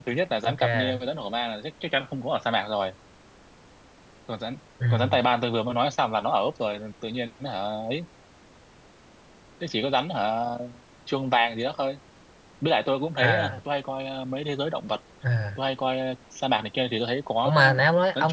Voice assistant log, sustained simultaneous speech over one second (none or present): none